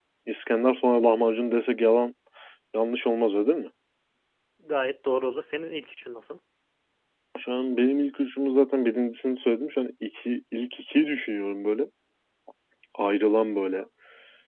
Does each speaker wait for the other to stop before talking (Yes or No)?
Yes